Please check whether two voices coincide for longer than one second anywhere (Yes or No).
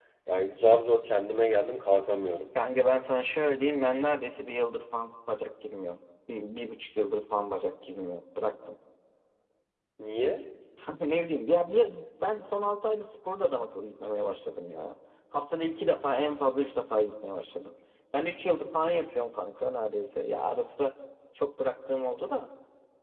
No